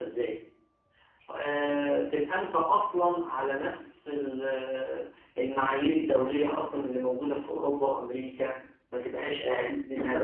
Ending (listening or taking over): taking over